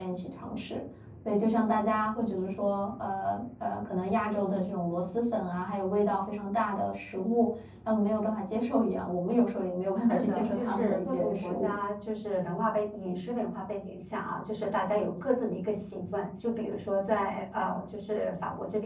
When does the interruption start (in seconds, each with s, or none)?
10.1 s